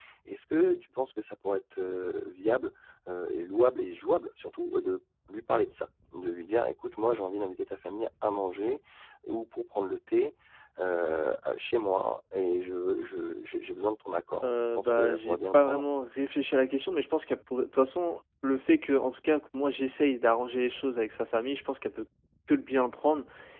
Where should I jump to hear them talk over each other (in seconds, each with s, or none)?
14.4 s